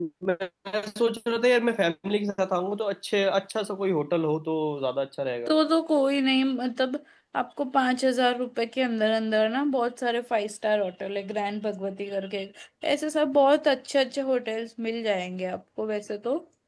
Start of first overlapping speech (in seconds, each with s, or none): none